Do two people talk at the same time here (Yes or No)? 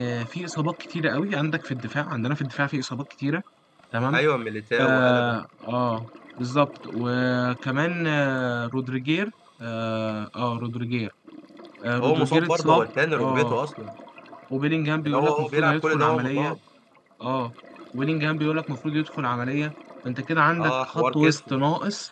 Yes